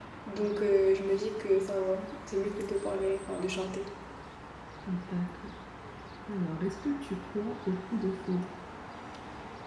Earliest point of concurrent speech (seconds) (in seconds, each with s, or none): none